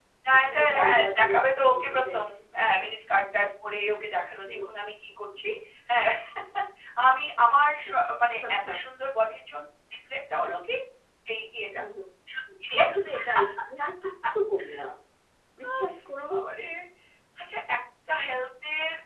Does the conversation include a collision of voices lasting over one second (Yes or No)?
Yes